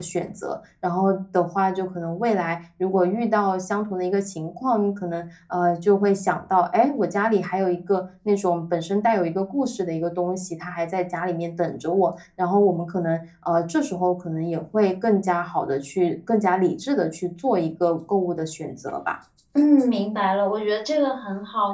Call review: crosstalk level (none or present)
none